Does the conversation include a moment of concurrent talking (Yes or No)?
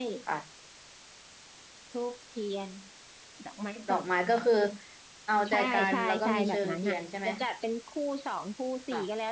Yes